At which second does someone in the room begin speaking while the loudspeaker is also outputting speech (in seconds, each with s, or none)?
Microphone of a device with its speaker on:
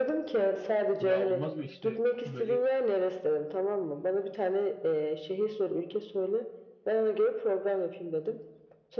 1.0 s